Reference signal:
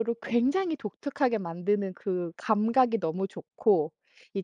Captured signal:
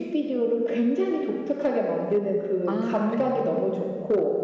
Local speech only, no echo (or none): 아 그래요?